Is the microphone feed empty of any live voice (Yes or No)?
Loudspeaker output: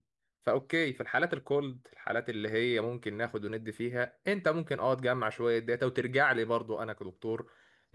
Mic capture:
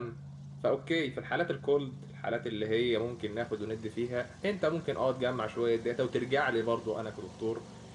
Yes